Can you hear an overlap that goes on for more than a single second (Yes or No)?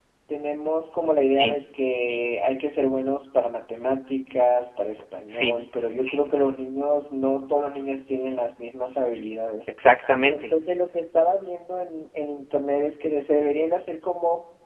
No